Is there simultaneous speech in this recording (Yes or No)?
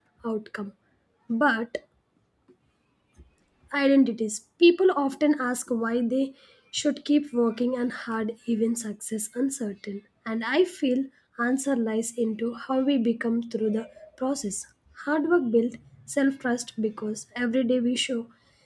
No